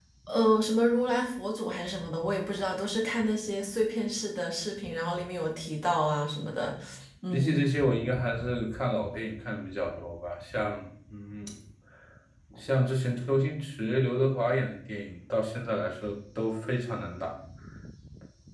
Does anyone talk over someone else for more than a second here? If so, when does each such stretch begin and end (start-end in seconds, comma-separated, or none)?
none